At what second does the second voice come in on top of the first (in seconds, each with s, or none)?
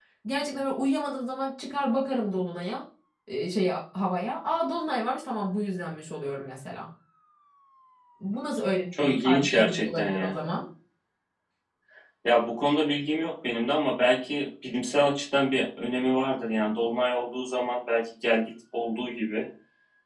9.0 s